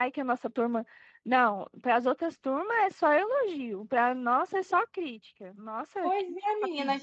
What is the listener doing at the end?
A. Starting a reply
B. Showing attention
A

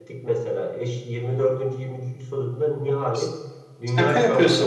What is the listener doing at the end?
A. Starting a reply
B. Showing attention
B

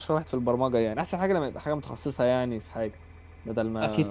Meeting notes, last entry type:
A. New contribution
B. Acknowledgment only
A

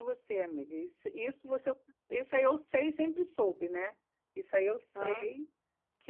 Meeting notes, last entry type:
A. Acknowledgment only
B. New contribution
A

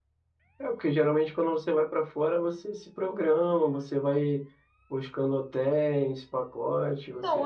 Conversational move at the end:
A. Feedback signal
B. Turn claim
B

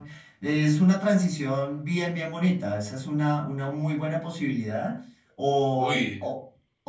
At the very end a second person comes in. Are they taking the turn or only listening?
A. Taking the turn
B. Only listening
B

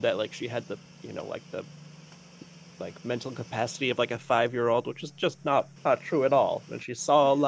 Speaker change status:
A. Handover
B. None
B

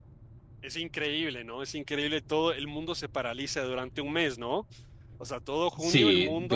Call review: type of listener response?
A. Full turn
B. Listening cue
A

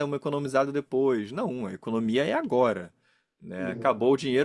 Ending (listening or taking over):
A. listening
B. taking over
A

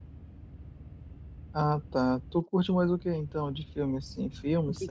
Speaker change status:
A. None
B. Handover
B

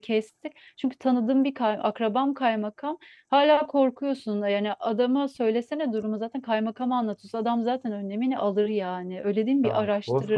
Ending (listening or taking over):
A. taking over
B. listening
A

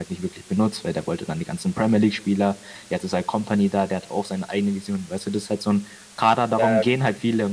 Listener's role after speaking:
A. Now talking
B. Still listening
B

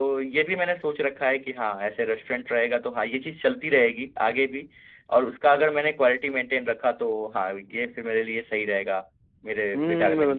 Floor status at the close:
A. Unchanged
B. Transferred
B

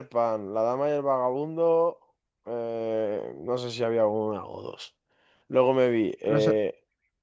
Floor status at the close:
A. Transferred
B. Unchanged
B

